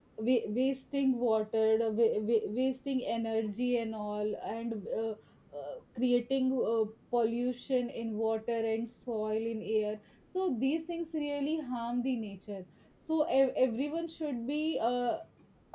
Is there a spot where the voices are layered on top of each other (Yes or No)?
No